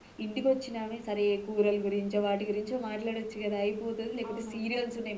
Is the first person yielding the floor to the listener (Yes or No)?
No